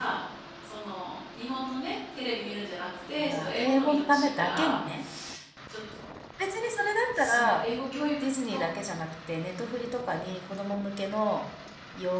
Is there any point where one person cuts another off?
Yes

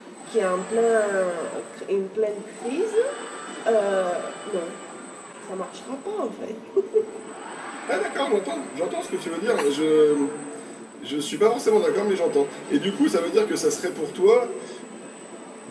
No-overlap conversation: Yes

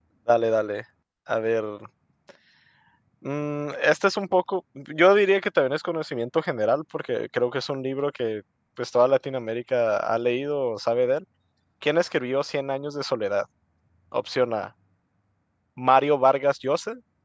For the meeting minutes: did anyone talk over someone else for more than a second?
No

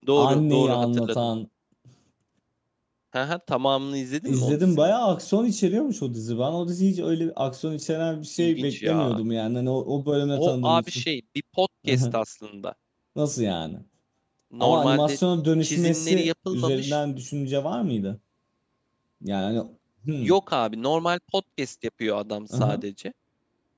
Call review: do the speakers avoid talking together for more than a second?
No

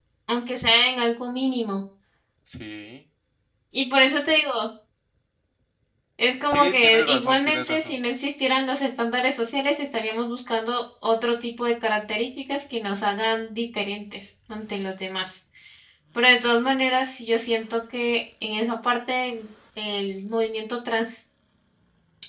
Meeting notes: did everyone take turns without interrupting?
No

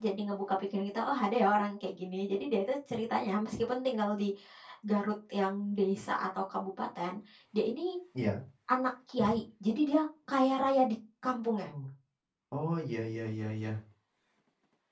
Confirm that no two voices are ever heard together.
Yes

